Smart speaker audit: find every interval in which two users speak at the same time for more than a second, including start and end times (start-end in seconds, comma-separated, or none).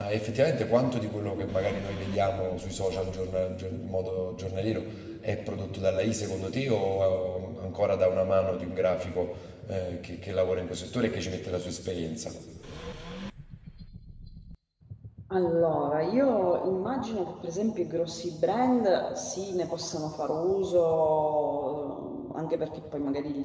none